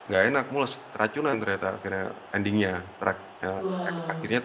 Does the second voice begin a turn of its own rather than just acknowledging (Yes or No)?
No